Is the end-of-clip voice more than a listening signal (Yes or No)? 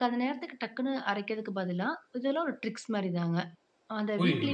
Yes